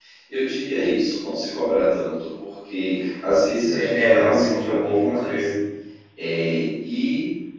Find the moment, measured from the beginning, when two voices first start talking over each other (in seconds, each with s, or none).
3.6 s